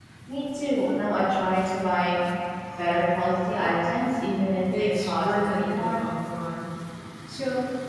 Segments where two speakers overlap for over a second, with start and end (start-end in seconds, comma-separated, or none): 4.8-6.0